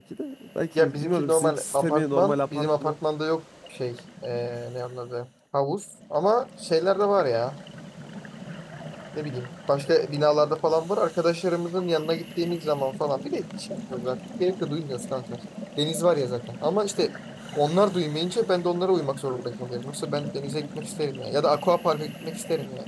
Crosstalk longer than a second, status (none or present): present